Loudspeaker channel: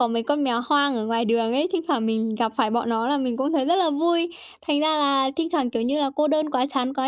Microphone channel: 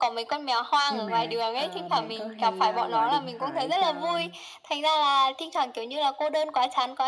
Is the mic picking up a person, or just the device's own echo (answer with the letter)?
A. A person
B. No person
A